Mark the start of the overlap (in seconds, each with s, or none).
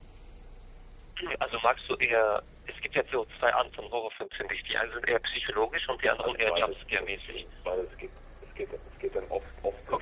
6.2 s